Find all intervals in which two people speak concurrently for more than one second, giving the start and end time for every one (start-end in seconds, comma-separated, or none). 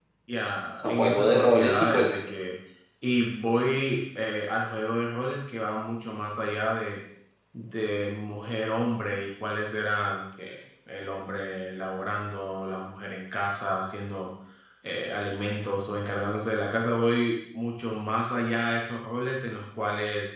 0.8-2.2